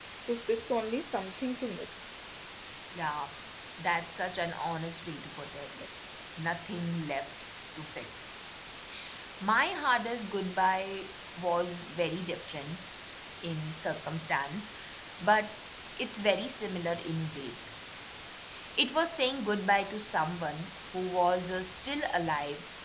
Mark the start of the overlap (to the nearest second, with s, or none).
none